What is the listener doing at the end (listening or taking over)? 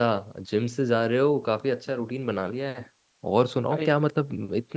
listening